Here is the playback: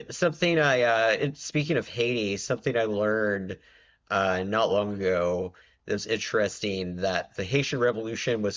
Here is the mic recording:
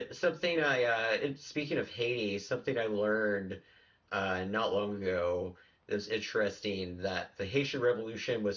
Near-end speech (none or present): none